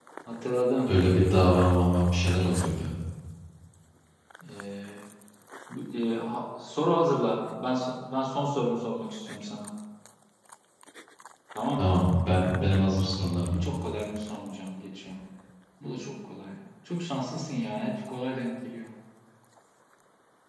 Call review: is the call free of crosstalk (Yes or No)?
Yes